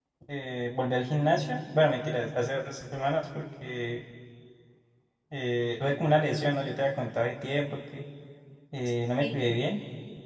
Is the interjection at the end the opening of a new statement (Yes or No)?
No